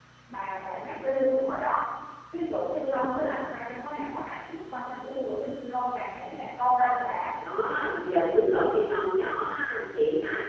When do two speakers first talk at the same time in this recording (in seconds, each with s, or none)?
none